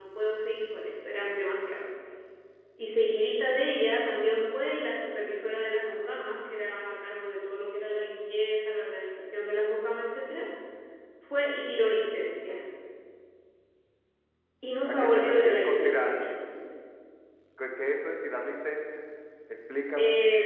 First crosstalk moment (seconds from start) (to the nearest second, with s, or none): 15 s